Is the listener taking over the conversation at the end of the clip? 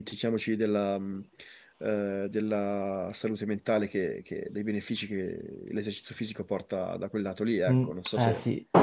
Yes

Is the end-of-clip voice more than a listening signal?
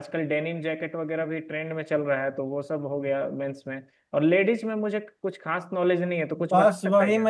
Yes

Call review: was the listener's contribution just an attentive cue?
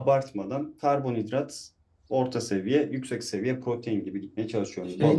No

